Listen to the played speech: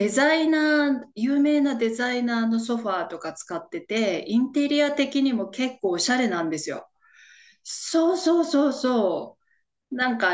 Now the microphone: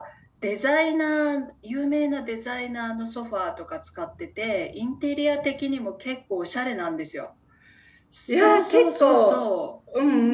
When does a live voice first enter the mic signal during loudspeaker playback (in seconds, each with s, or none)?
8.3 s